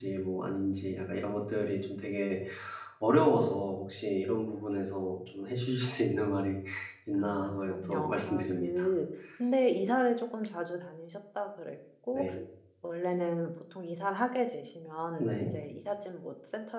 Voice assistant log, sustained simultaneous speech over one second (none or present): present